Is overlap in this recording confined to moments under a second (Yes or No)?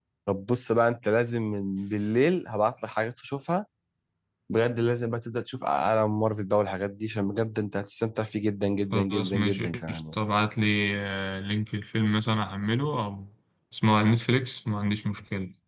No